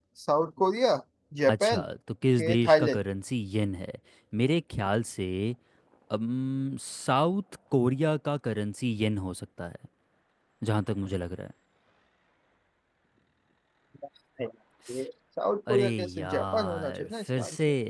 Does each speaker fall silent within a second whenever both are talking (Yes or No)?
No